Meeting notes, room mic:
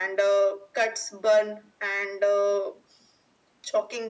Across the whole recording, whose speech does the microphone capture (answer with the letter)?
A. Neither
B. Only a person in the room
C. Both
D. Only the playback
D